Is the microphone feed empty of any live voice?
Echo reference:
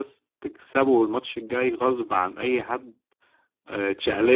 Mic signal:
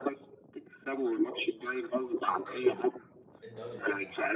No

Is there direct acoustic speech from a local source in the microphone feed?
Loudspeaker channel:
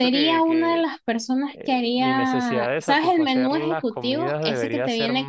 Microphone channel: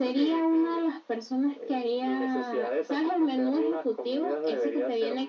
No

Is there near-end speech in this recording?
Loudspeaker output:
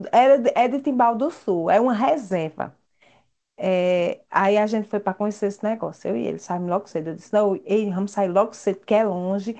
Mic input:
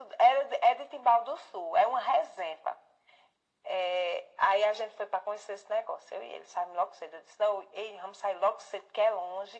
No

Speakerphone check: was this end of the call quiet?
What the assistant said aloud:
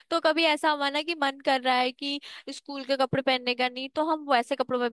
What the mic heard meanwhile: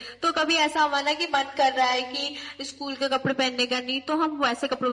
Yes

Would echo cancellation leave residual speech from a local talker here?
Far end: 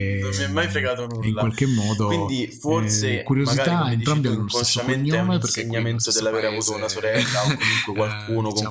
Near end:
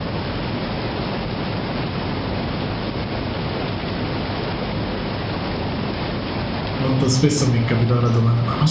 Yes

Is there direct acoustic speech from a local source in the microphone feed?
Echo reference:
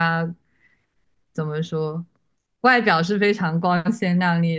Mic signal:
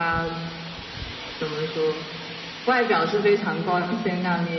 No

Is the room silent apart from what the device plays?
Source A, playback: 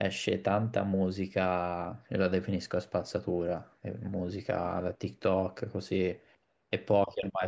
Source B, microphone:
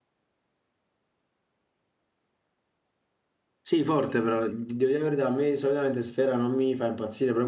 No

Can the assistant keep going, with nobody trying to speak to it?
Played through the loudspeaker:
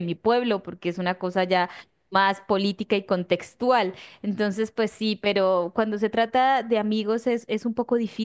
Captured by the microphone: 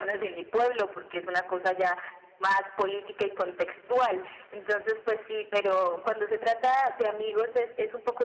Yes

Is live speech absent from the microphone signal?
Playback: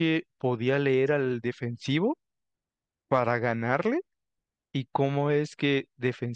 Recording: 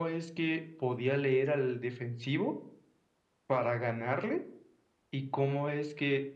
Yes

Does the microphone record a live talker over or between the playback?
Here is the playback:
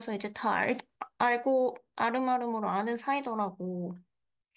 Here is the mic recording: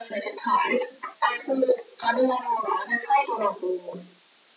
No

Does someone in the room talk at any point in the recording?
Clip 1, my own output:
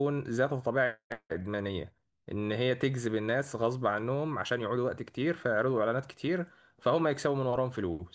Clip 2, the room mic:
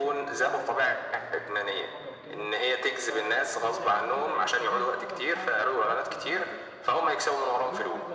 Yes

